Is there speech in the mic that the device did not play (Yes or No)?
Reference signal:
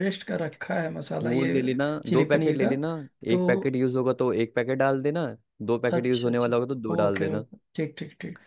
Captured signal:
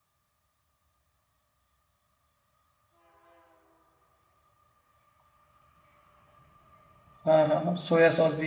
Yes